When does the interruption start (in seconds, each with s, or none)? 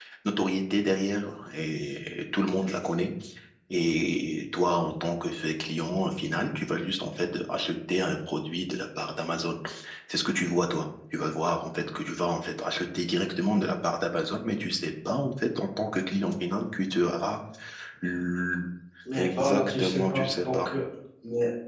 19.2 s